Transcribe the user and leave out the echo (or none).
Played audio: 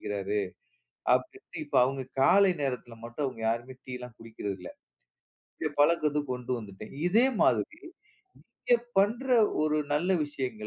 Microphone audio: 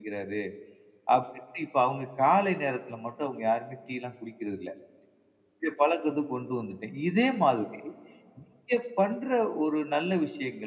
none